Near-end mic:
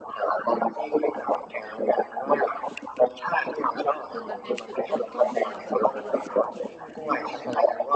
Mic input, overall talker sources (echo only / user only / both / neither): both